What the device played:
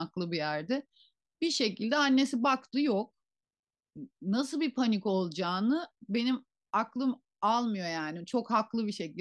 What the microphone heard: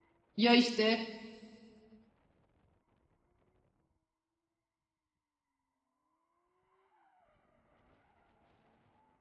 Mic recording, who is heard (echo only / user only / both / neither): user only